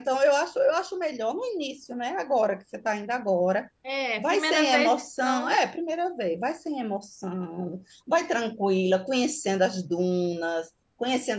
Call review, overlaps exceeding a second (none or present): present